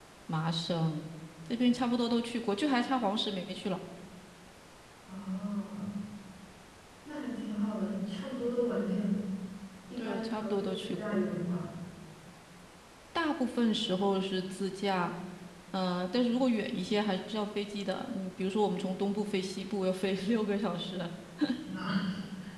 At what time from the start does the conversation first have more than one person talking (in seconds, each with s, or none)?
10.0 s